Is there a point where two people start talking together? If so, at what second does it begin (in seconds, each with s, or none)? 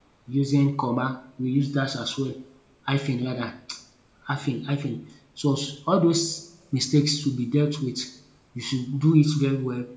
none